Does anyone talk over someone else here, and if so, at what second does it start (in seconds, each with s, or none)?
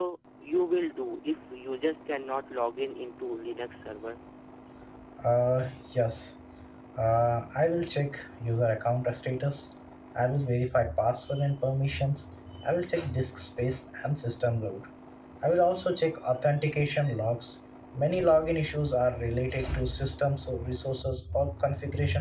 none